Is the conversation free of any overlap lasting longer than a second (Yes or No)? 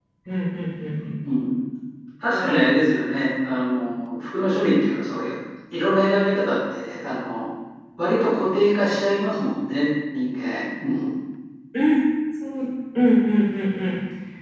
Yes